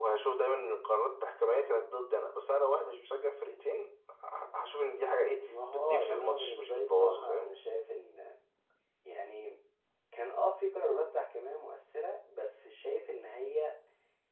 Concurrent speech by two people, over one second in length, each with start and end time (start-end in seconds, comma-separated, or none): 5.7-7.5